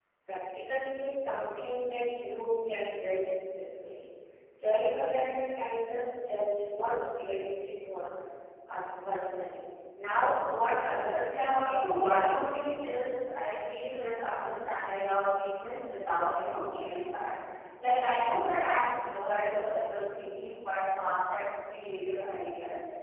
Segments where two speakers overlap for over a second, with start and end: 11.4-12.6

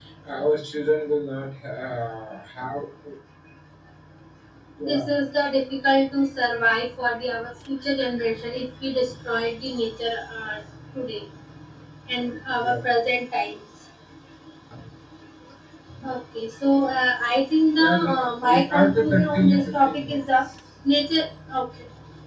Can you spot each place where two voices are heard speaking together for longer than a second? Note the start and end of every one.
18.5-20.2

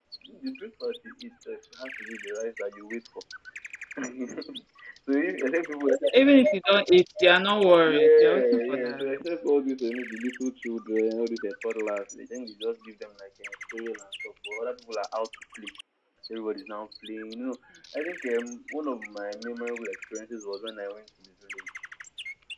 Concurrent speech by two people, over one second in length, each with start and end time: 7.8-9.1

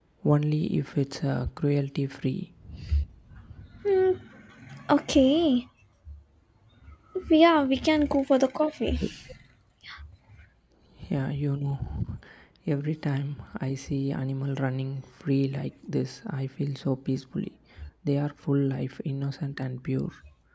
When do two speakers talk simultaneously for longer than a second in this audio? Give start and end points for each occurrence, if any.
none

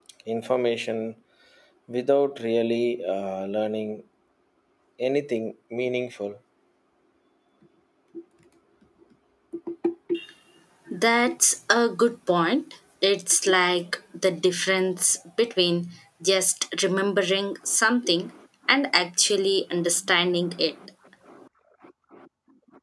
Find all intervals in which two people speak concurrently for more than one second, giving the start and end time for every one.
none

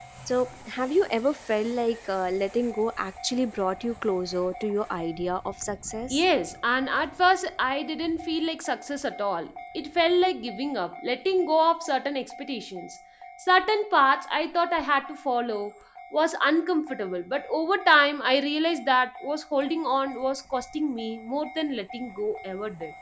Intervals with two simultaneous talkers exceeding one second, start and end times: none

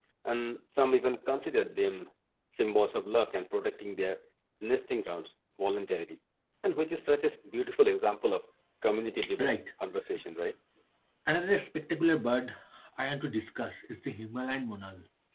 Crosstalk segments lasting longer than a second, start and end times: none

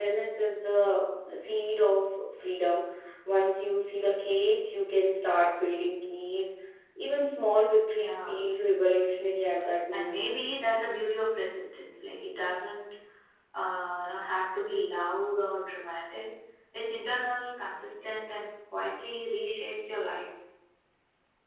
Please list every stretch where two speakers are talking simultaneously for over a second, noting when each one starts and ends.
none

